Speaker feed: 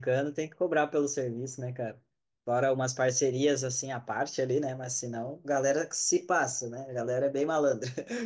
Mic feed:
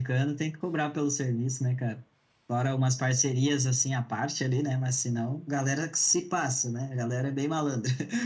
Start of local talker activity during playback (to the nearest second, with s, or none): none